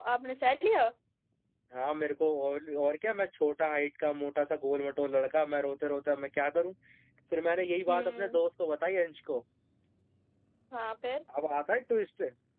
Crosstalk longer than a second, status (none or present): none